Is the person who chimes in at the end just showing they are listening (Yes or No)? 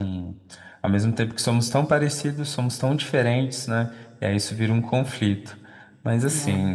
Yes